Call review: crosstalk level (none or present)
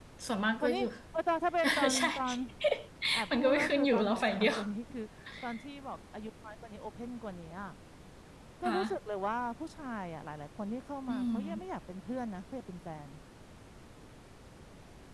present